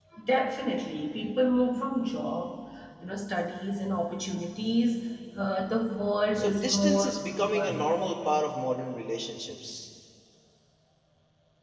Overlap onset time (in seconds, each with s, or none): 6.4 s